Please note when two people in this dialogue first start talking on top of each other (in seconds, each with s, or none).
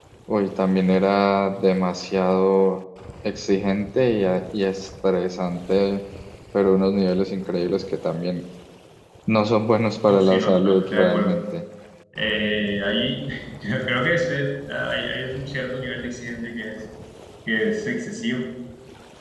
10.1 s